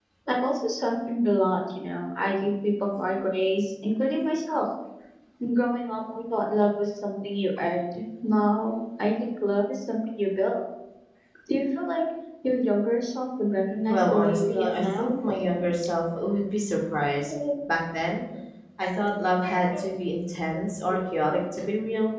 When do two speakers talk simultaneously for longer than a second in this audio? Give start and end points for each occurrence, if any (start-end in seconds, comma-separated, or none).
13.9-15.1